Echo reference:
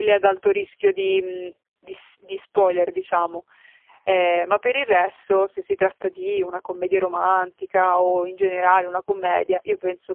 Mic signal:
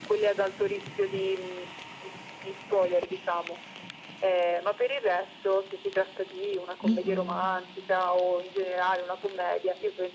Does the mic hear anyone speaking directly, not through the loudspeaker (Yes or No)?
Yes